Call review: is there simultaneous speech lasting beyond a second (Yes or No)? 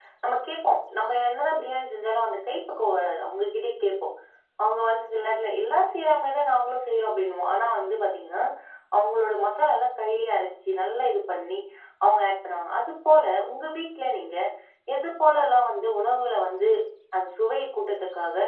No